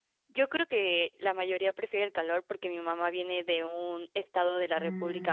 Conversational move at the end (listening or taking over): listening